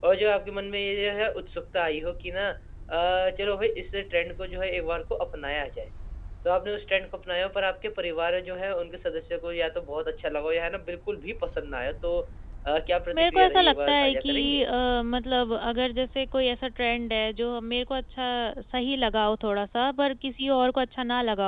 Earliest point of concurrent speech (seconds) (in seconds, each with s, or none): 13.1 s